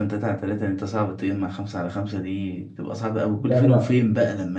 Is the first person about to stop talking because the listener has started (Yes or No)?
No